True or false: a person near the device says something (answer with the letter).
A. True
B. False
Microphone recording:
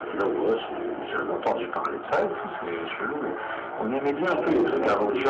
A